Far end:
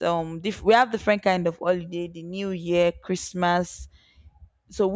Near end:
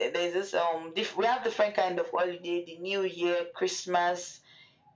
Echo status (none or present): present